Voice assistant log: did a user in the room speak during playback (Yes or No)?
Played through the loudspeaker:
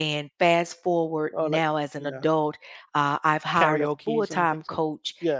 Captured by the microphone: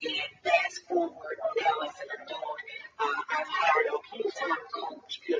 No